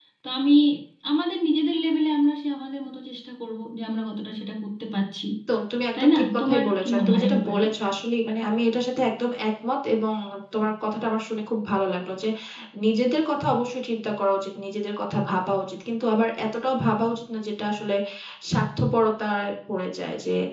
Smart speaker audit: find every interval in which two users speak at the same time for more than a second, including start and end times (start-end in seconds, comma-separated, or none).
5.9-7.6